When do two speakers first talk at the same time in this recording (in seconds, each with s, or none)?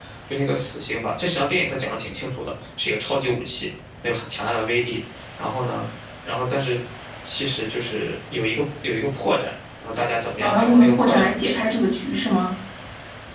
10.4 s